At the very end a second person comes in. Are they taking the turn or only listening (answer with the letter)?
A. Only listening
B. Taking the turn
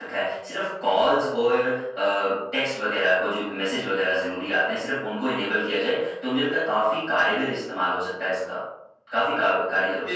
B